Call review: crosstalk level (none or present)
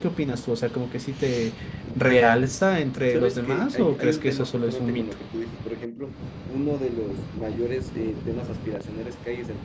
present